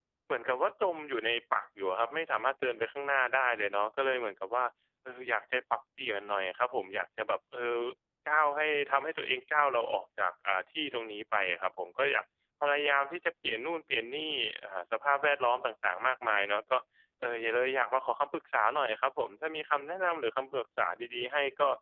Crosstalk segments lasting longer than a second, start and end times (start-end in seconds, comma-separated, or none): none